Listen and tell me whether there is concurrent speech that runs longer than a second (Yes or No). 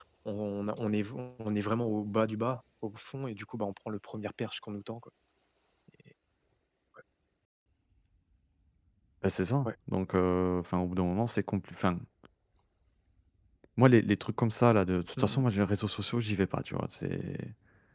No